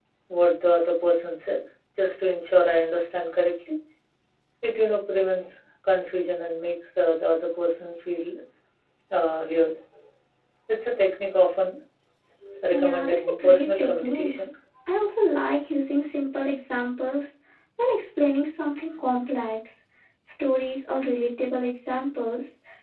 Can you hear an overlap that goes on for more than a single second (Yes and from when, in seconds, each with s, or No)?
Yes, from 12.7 s